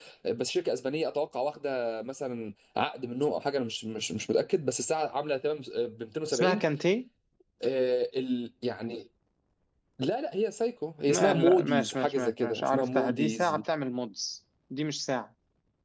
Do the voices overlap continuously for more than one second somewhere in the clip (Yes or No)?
Yes